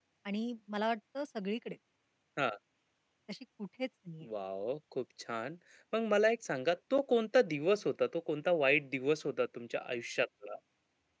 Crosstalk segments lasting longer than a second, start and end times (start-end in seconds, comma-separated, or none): none